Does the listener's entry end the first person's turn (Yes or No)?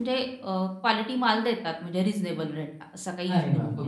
Yes